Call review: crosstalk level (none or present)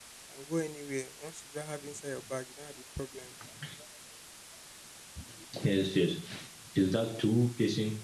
none